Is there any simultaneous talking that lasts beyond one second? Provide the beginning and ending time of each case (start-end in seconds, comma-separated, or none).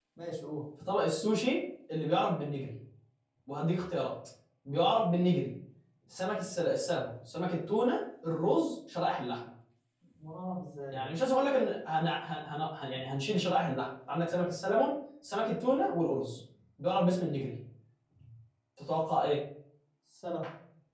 none